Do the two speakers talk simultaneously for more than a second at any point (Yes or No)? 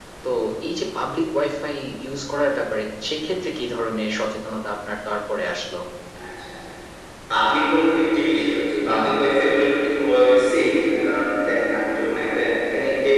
No